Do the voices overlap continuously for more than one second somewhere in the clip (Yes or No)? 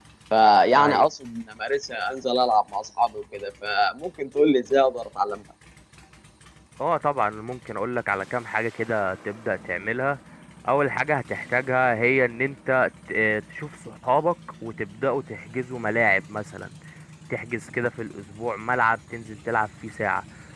No